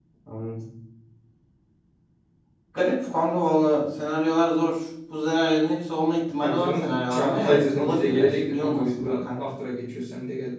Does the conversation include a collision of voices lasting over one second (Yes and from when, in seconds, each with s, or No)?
Yes, from 6.4 s